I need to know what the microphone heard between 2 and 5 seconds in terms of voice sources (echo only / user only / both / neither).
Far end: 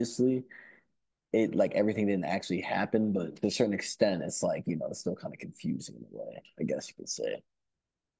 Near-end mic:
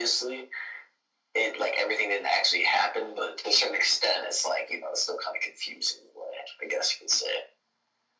echo only